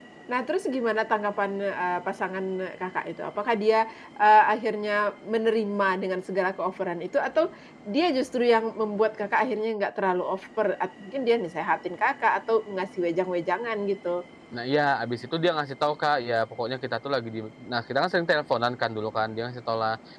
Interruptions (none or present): none